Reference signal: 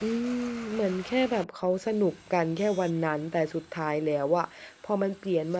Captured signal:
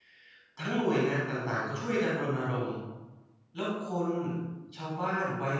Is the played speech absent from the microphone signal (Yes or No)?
Yes